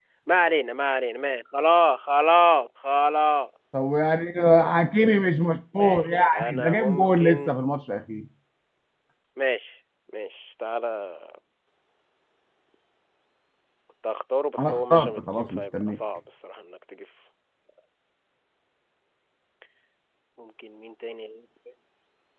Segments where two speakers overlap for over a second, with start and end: 5.7-7.6, 14.6-16.0

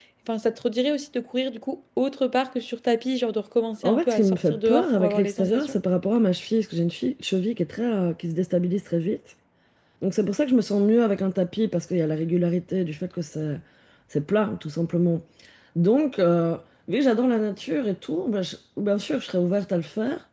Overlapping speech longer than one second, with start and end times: 3.8-5.8

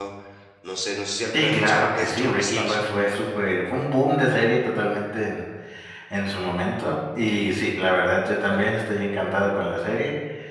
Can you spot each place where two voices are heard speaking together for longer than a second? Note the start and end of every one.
1.3-2.8

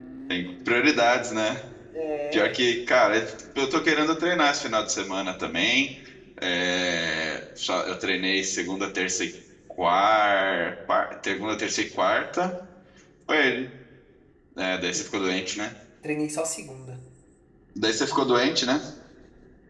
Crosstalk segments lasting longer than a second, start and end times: none

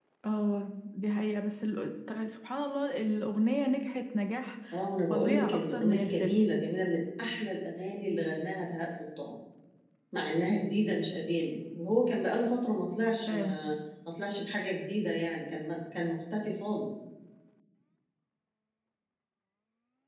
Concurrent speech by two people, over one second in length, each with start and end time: 5.1-6.4

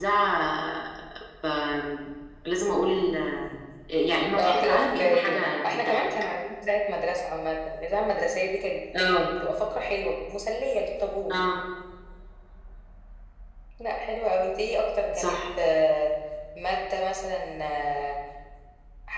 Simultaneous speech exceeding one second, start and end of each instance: 4.4-6.1

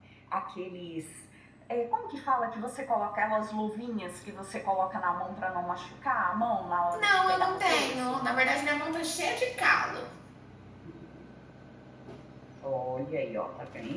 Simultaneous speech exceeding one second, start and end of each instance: 6.9-8.3

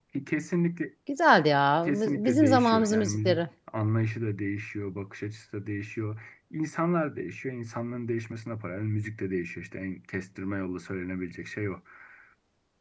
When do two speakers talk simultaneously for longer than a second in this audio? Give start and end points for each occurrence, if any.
1.8-3.4

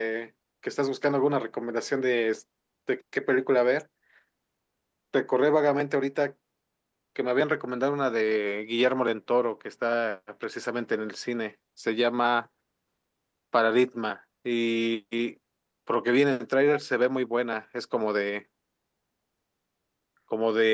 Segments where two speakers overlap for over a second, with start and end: none

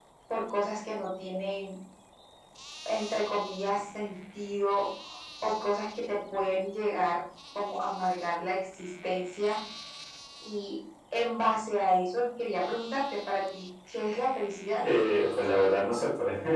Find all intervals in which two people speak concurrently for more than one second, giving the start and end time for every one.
none

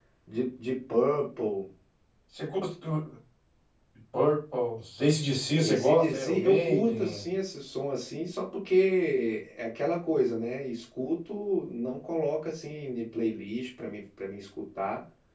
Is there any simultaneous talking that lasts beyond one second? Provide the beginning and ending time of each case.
5.6-7.2

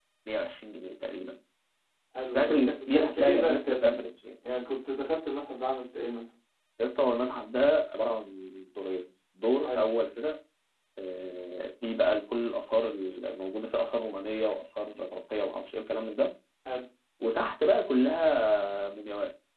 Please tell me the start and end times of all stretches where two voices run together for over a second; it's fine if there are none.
2.3-4.1

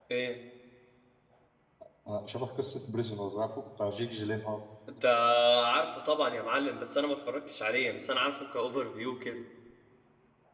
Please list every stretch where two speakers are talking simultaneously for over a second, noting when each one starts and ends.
none

